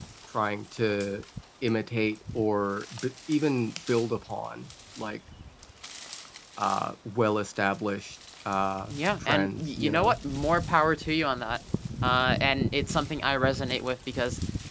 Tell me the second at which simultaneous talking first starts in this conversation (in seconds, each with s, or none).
8.9 s